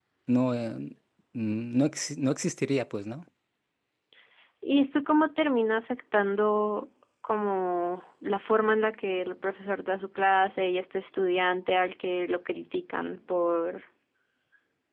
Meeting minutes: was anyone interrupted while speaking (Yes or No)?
No